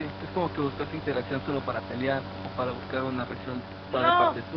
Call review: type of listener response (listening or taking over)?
taking over